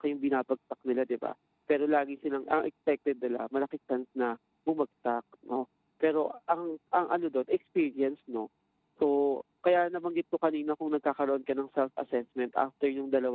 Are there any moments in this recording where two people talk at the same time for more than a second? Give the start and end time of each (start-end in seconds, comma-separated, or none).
none